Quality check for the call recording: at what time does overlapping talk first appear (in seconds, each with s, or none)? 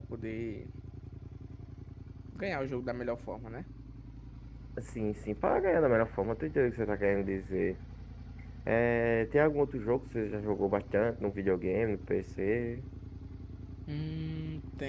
none